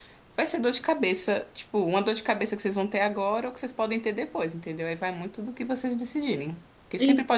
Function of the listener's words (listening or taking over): listening